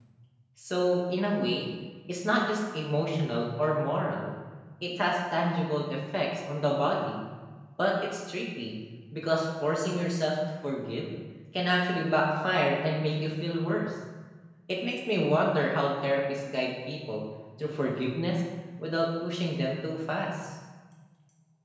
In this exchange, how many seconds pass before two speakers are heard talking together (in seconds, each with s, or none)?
none